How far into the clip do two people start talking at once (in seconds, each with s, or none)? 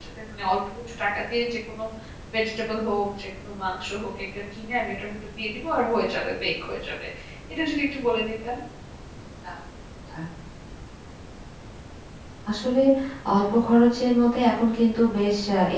none